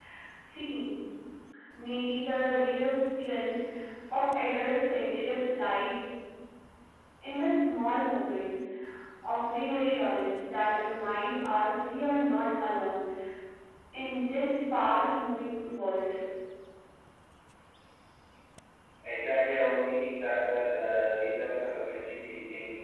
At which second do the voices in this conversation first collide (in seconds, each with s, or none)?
none